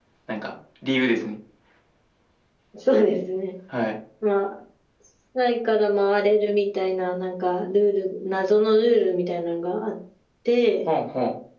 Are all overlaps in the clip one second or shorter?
Yes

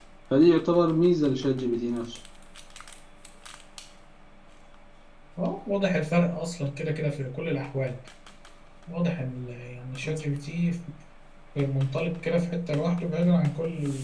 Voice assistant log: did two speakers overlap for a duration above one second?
No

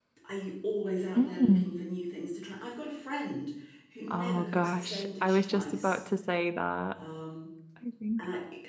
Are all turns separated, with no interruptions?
No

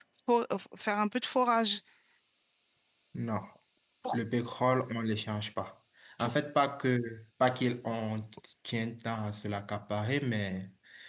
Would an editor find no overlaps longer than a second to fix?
Yes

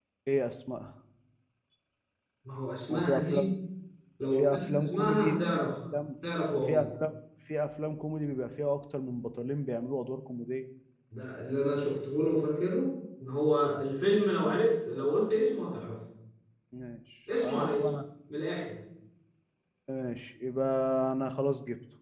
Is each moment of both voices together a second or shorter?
No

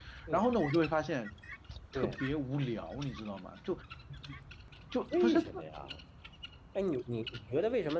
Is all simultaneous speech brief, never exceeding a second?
Yes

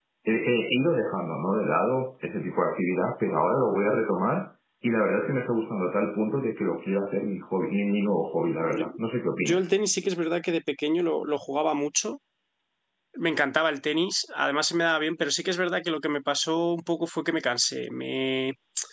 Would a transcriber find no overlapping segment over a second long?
Yes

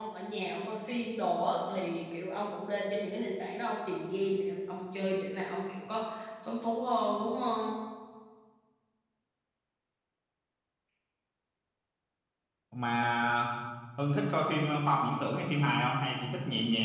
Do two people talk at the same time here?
No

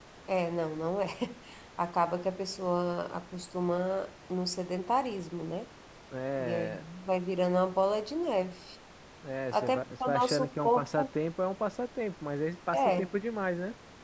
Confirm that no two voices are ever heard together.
No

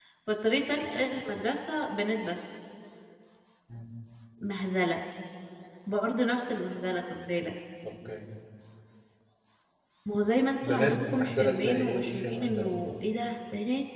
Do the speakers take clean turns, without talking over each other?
No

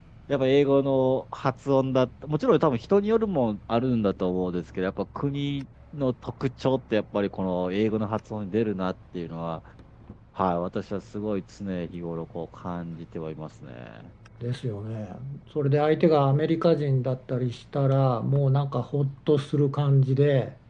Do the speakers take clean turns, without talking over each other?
Yes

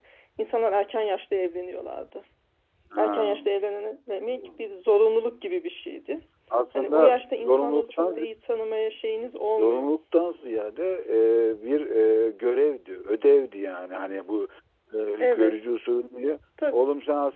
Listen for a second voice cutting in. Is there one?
Yes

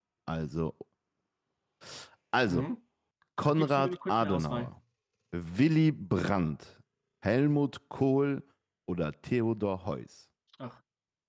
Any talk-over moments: Yes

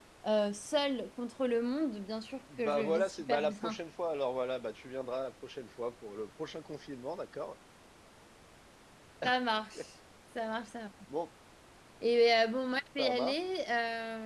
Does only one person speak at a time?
No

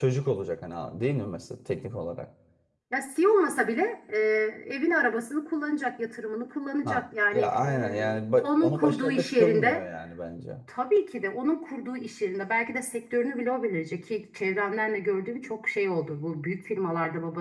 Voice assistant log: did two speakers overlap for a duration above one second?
Yes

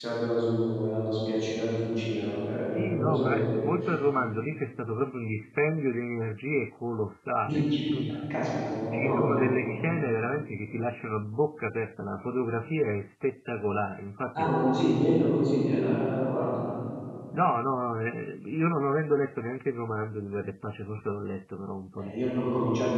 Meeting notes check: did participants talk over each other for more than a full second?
Yes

